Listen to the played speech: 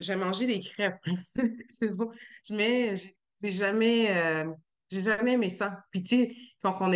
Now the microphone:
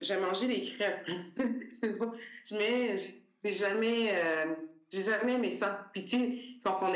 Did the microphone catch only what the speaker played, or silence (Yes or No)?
Yes